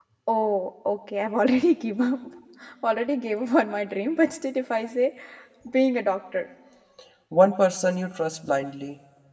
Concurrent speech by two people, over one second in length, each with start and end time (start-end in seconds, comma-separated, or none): none